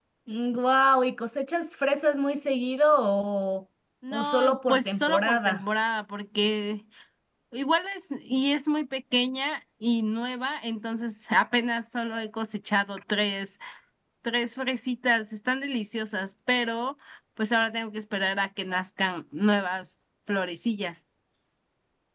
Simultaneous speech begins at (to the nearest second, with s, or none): 4 s